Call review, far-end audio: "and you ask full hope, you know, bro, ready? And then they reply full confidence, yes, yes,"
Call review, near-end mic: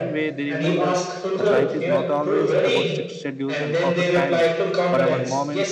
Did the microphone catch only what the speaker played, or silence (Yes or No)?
No